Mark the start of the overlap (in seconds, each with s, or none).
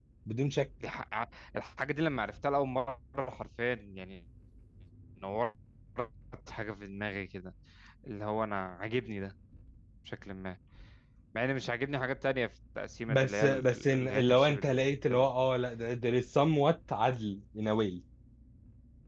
13.1 s